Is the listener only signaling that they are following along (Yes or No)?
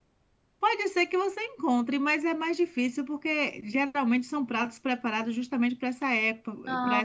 Yes